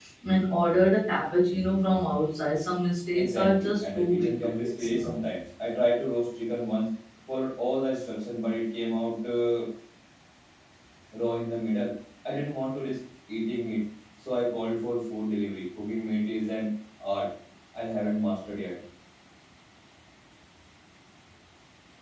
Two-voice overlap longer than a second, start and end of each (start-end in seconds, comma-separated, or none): 3.2-5.2